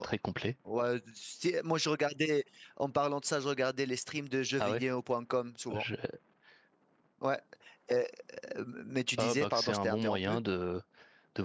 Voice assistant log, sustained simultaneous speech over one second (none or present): present